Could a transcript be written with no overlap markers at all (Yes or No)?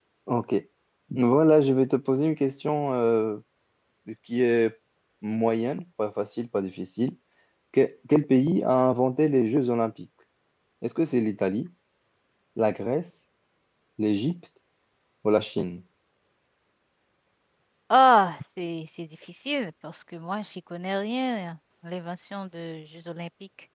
Yes